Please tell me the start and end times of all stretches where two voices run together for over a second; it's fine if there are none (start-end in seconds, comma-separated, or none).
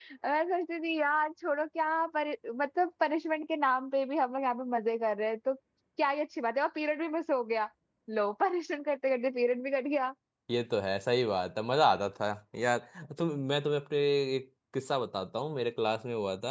none